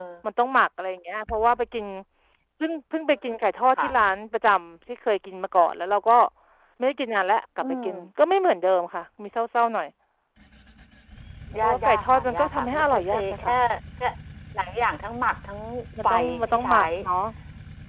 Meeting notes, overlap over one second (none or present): present